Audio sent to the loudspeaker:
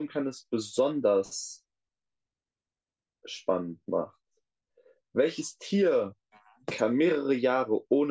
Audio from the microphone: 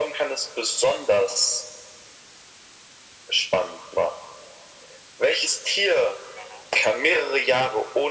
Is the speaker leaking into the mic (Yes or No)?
Yes